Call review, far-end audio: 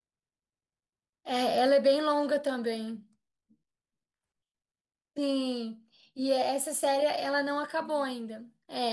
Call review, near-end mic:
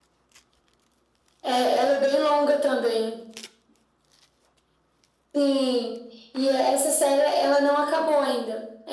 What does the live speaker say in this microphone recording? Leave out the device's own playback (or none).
none